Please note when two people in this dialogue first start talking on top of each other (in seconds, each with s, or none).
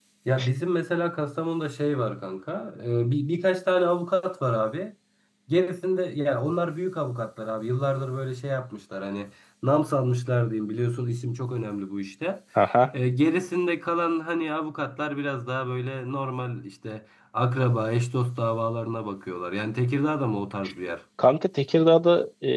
none